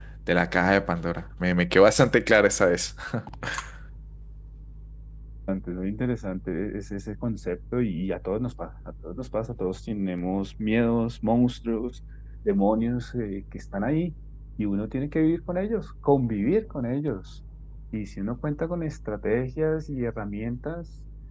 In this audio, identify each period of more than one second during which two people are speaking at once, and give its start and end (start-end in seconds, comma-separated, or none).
none